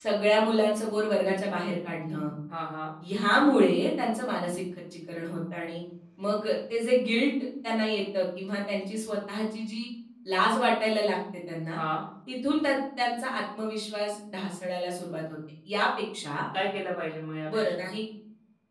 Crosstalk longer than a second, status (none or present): none